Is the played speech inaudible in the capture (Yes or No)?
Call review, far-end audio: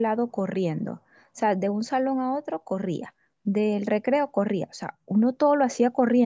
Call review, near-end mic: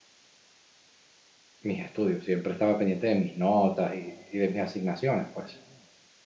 Yes